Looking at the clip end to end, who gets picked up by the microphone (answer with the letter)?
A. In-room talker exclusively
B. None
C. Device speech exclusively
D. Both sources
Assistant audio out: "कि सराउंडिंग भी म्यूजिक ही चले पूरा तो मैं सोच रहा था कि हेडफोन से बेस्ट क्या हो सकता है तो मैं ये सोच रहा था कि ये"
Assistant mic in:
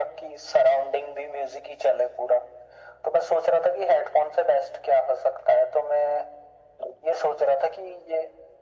C